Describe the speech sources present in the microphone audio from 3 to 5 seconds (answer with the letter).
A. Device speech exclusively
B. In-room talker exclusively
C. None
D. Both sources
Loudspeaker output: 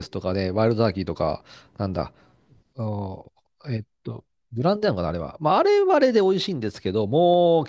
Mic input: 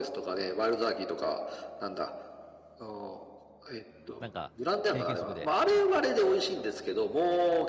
D